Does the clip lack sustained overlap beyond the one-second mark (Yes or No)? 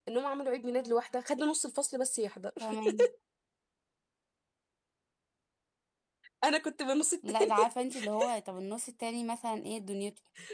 Yes